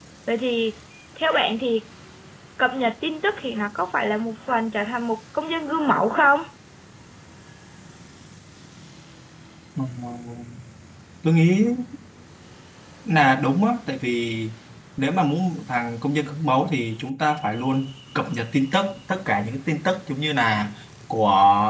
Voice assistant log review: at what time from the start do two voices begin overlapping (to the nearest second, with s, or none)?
none